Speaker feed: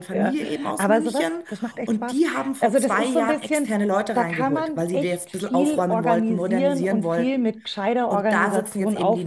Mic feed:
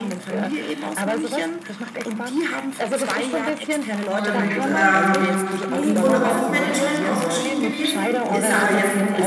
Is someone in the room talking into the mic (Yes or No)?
Yes